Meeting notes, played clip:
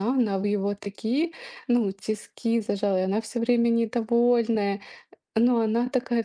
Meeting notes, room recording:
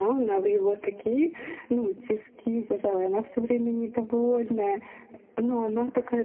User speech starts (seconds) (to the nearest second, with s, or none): none